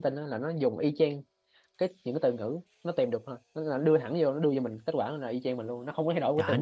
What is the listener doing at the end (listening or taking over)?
taking over